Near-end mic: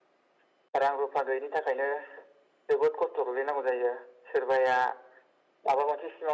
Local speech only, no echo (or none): none